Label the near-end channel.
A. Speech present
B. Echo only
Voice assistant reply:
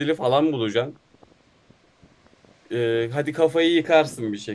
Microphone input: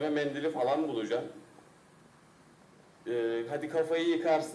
B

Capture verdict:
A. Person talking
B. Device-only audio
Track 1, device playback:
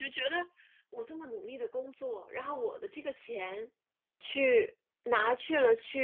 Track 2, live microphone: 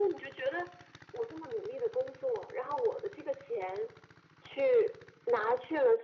B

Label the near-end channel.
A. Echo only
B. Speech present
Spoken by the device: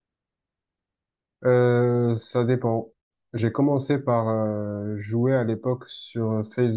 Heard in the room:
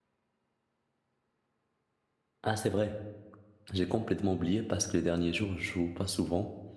B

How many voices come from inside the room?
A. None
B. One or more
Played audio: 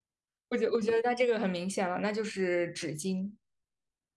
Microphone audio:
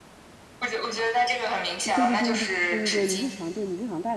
B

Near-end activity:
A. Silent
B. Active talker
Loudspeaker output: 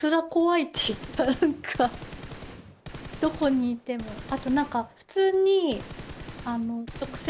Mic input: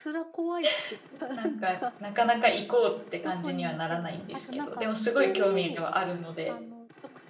B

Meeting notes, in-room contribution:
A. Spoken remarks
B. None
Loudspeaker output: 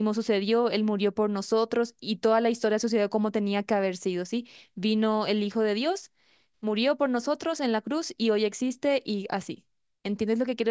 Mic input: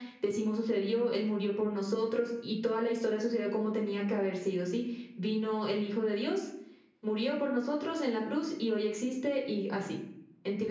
B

